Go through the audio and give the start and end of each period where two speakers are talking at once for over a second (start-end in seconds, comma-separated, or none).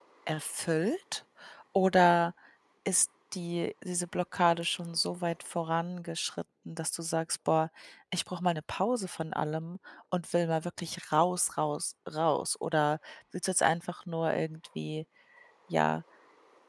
none